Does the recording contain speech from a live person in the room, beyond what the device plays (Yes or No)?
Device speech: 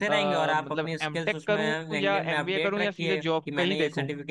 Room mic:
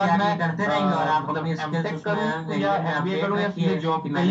No